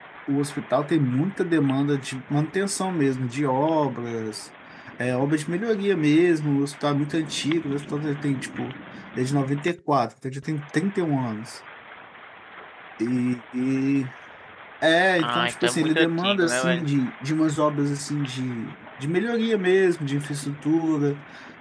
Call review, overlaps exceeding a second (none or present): present